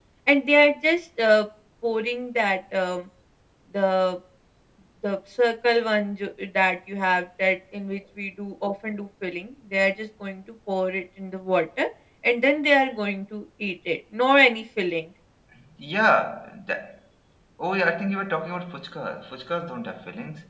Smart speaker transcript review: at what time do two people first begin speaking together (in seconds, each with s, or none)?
none